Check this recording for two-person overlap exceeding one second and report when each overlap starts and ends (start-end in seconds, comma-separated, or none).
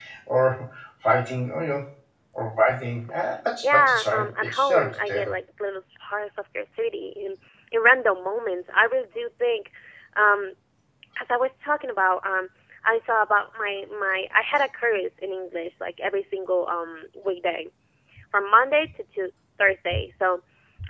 3.6-5.3